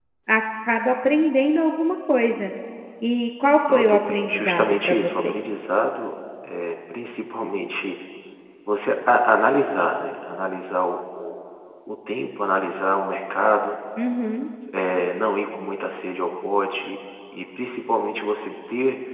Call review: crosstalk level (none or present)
present